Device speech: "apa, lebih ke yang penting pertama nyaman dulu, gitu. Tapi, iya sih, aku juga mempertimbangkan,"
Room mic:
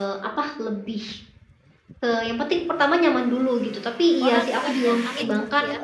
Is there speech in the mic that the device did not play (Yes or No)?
Yes